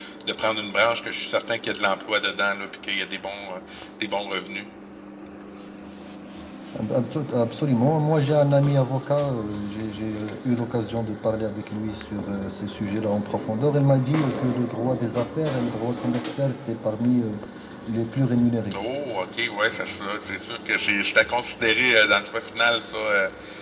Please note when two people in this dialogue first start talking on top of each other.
none

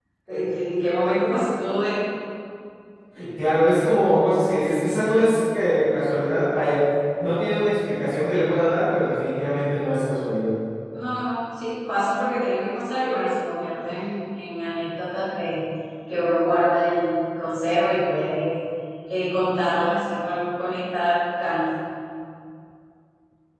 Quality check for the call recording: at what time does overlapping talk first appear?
none

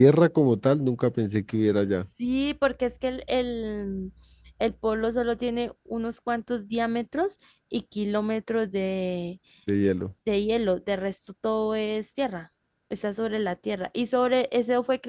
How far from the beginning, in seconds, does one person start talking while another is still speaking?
none

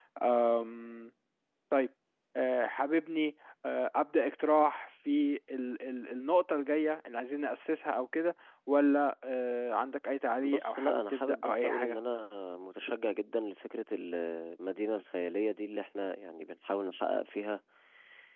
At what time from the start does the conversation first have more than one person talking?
10.4 s

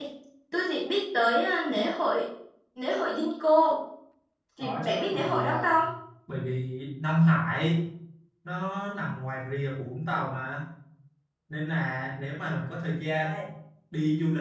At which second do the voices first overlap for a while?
4.6 s

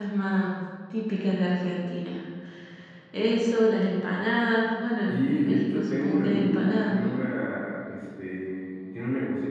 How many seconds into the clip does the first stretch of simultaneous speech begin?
5.1 s

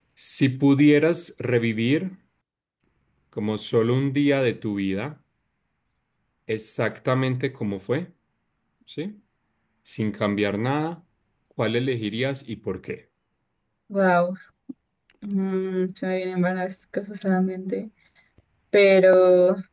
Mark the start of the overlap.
none

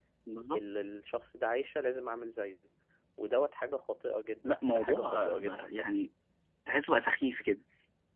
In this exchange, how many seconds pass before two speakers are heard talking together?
4.4 s

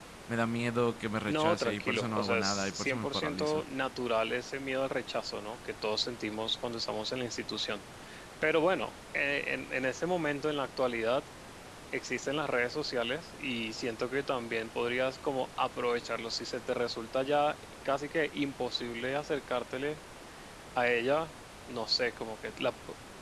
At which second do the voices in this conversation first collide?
1.3 s

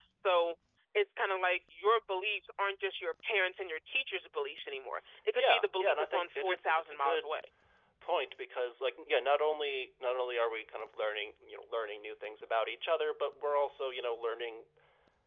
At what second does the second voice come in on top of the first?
5.4 s

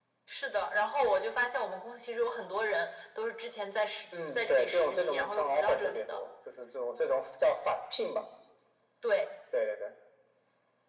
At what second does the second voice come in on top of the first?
4.1 s

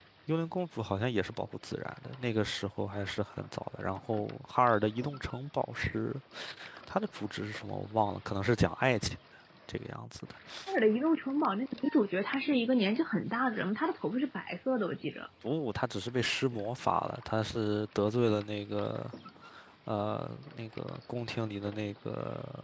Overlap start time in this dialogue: none

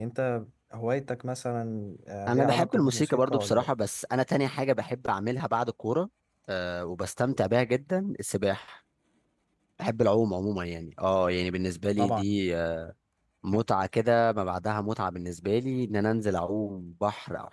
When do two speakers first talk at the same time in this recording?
2.3 s

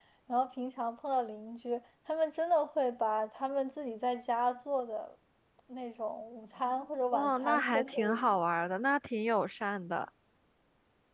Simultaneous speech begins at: 7.1 s

